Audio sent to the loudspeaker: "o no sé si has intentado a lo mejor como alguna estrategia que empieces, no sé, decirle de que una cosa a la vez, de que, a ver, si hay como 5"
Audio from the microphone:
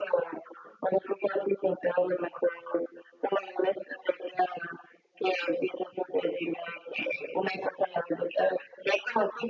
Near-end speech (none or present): none